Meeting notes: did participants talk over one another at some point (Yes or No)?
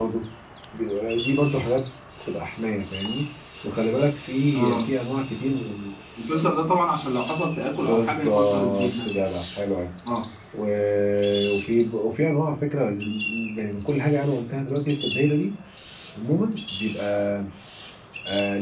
Yes